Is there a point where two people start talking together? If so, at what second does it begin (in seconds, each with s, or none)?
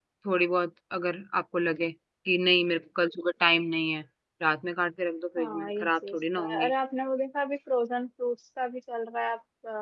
5.4 s